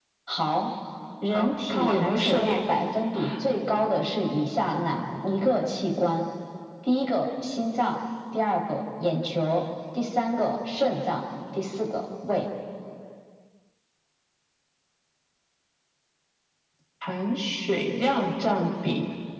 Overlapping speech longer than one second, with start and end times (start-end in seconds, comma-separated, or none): 1.3-2.6